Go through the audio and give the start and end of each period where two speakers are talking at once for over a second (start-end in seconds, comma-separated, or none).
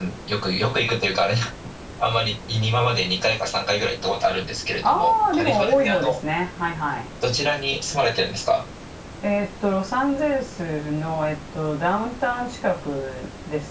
4.8-6.1